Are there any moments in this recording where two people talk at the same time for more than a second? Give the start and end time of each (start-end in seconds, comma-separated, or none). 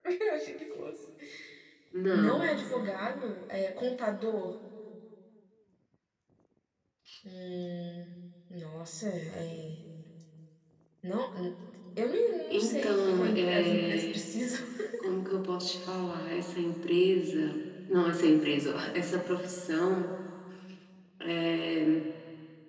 12.5-14.2